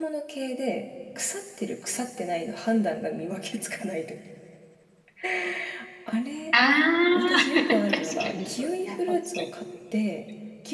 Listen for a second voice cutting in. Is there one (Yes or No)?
Yes